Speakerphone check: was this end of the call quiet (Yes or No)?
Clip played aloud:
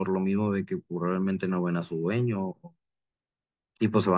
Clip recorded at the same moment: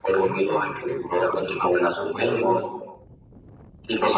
No